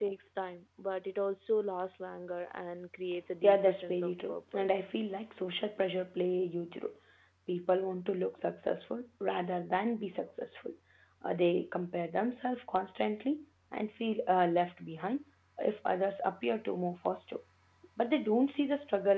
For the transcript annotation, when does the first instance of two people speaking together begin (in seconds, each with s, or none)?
3.4 s